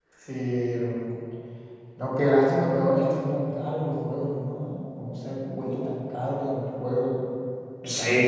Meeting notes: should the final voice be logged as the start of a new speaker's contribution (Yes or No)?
Yes